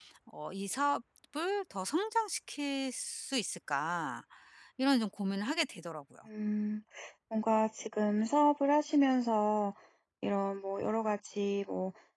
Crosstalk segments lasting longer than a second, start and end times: none

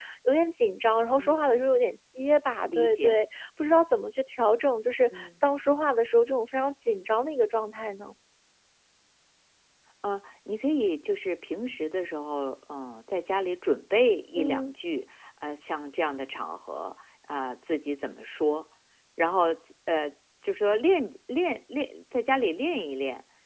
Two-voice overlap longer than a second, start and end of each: none

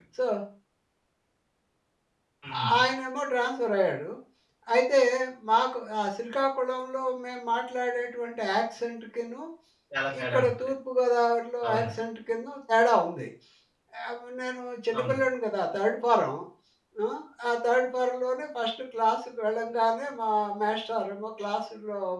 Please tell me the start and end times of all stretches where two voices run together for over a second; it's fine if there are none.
none

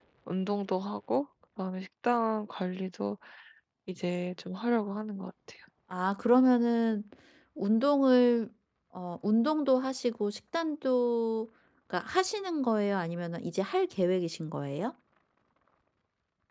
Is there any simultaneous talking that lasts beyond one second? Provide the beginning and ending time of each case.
none

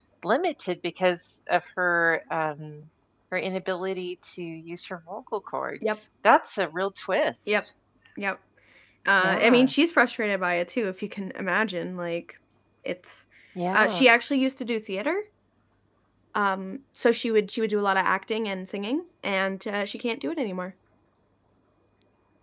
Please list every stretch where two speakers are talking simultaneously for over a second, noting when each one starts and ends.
none

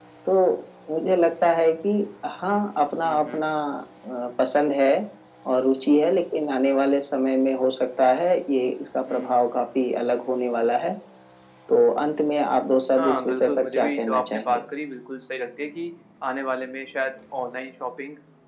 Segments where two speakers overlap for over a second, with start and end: 12.9-14.6

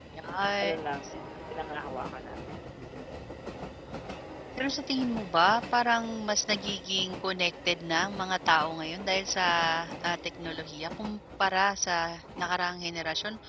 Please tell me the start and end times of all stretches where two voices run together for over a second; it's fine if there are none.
none

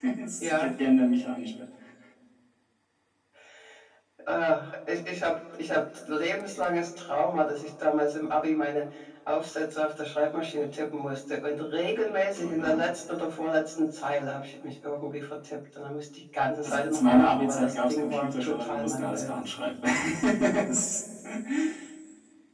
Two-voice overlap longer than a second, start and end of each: 16.6-19.3

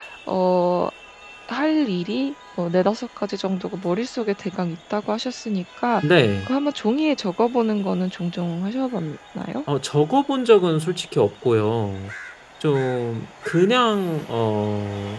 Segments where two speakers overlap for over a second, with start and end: none

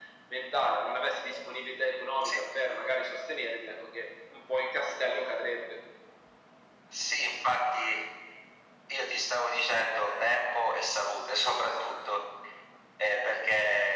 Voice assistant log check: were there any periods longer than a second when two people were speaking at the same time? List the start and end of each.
none

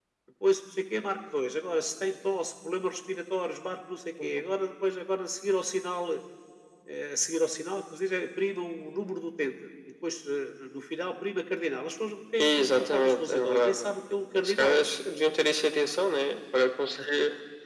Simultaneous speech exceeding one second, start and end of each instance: 12.4-13.9

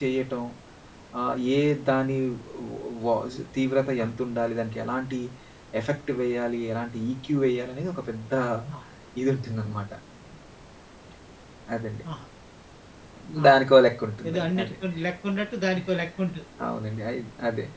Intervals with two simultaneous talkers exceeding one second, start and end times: none

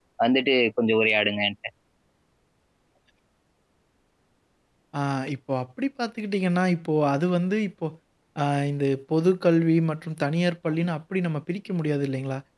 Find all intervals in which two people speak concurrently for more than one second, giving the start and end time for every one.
none

